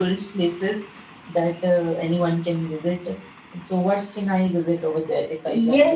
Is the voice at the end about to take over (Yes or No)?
Yes